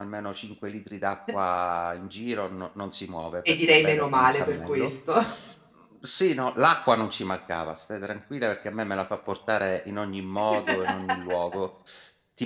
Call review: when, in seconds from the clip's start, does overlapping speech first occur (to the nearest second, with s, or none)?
3 s